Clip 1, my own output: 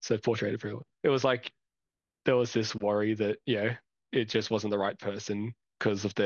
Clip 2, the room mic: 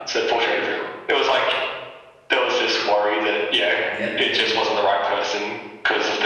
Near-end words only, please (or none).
yep,